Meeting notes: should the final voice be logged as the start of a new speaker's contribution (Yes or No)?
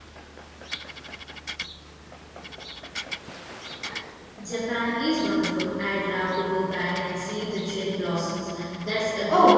Yes